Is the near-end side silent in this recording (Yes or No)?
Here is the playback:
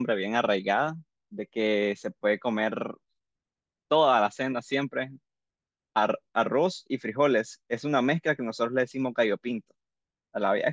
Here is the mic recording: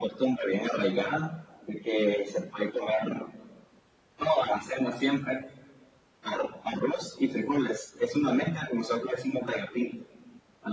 Yes